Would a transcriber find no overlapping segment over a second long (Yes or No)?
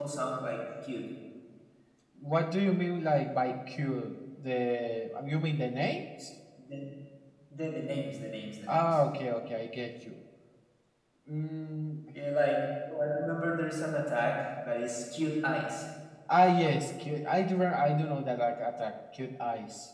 Yes